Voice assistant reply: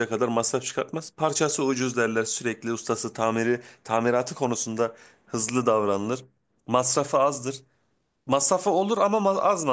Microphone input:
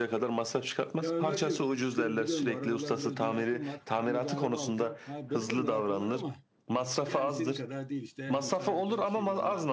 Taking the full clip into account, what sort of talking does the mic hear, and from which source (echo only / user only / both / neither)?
both